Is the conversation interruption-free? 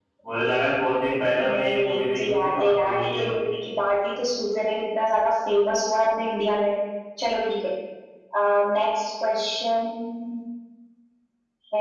No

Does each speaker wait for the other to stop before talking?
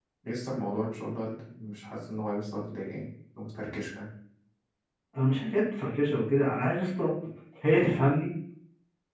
Yes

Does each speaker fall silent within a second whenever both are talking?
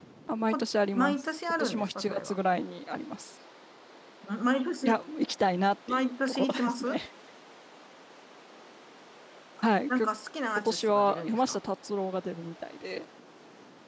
No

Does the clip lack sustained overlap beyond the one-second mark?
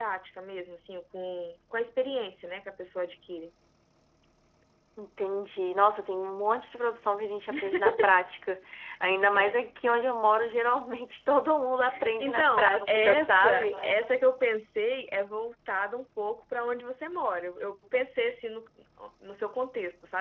No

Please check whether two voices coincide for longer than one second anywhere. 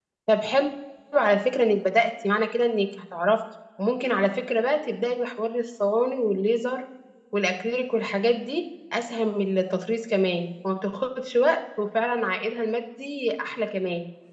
No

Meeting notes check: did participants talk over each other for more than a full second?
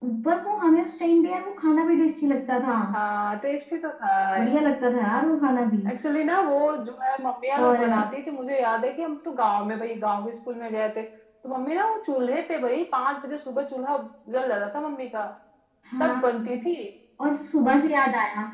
No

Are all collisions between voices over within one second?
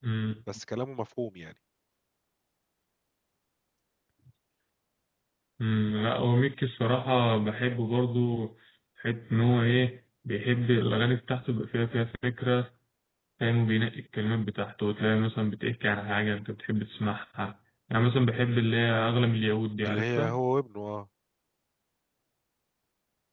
Yes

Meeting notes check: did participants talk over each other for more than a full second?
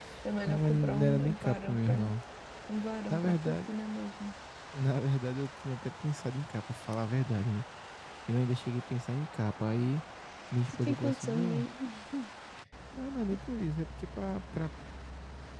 Yes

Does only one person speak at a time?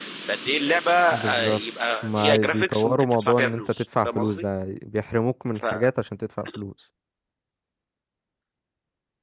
No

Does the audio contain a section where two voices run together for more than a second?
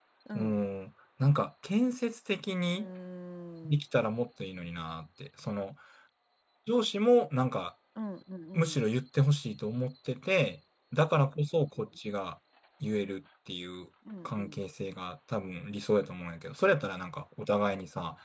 No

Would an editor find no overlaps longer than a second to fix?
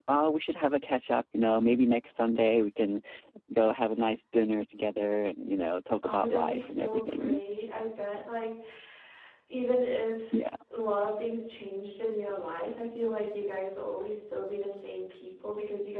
No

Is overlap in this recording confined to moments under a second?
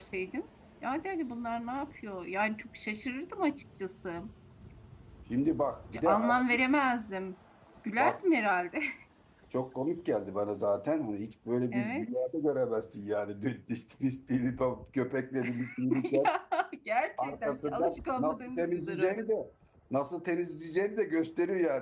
No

